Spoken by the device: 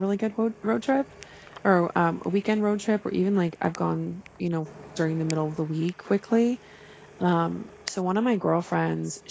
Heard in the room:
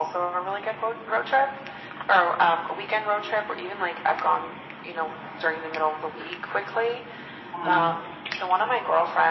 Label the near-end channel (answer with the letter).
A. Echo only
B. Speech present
B